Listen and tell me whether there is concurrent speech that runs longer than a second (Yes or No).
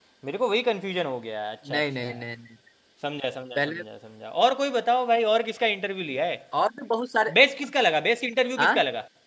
No